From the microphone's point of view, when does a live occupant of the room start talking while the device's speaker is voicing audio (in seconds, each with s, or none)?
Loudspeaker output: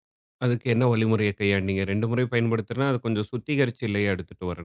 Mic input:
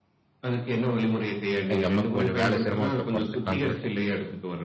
1.8 s